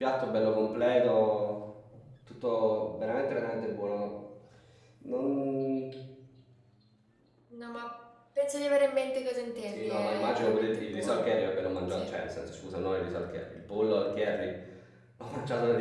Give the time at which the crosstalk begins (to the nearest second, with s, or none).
10 s